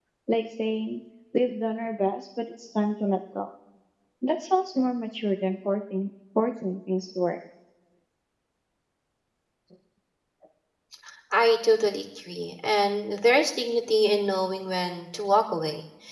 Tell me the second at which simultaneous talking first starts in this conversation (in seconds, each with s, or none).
none